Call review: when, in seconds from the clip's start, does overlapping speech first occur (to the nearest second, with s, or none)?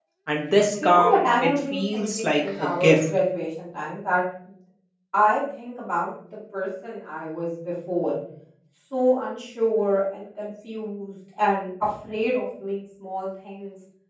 1 s